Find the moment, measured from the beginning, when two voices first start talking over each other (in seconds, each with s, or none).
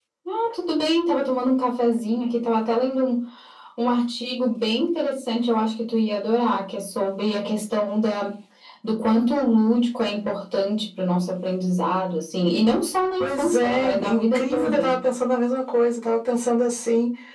13.2 s